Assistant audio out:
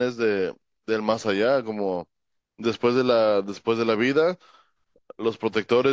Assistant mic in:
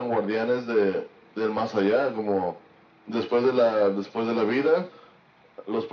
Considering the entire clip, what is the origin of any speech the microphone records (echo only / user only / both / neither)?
echo only